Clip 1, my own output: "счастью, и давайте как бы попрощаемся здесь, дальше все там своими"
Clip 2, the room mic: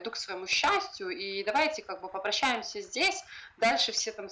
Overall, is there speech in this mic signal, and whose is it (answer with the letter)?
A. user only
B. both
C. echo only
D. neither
C